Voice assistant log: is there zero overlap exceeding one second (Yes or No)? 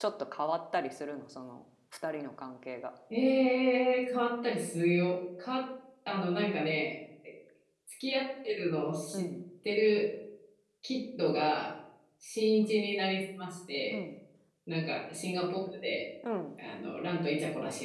Yes